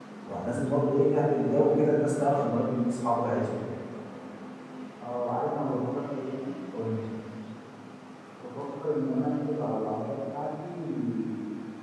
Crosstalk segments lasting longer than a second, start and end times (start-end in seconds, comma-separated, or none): none